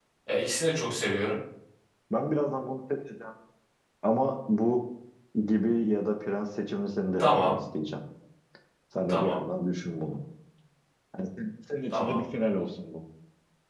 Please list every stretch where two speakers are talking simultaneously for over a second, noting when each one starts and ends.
none

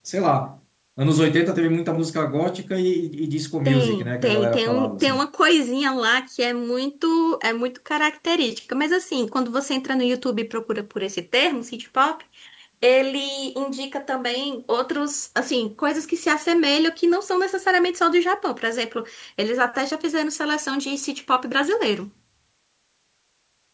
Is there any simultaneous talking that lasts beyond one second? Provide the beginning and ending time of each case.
3.6-5.2

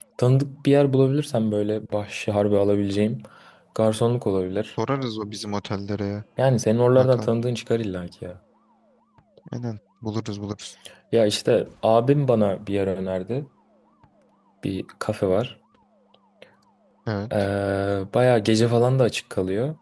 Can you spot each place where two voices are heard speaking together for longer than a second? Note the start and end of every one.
none

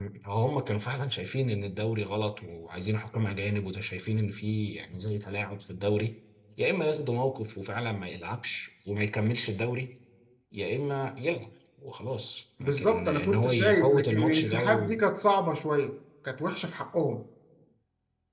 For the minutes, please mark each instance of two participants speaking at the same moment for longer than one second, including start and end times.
12.6-15.0

